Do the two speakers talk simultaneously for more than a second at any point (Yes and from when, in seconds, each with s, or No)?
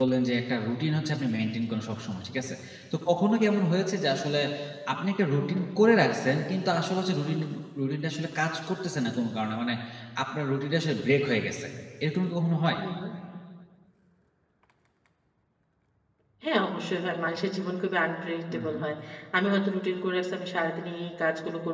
No